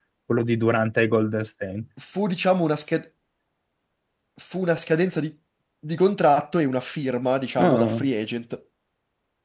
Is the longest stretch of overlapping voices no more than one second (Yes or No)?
Yes